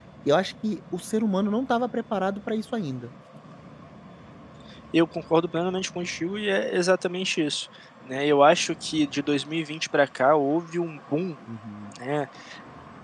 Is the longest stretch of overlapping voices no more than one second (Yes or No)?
Yes